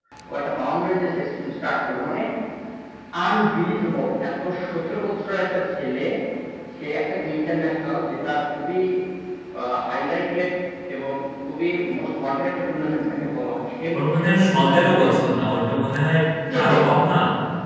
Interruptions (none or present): present